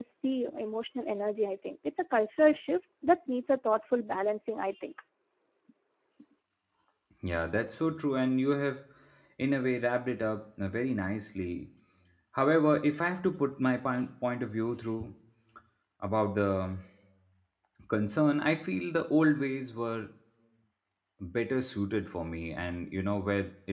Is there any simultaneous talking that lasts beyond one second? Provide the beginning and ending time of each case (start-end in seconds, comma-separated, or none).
none